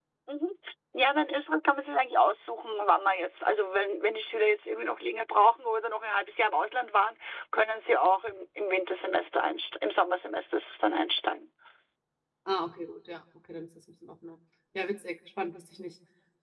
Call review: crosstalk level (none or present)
none